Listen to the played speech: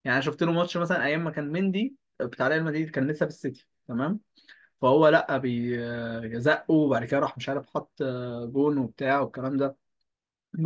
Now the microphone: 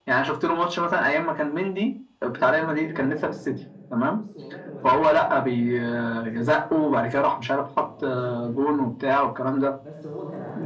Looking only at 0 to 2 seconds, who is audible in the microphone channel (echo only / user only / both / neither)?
echo only